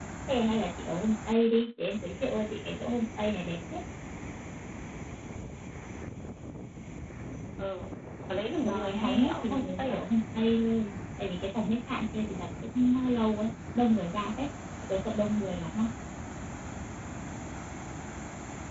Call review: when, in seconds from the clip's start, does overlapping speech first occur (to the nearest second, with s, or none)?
9 s